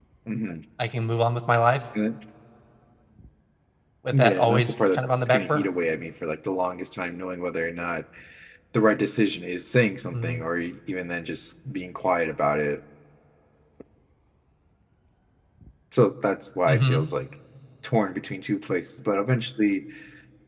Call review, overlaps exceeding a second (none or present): present